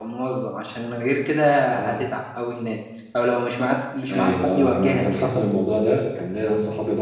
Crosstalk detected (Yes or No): Yes